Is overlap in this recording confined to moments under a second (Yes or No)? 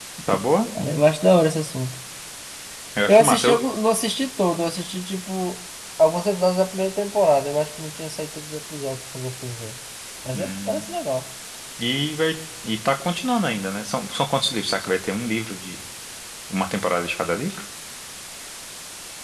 Yes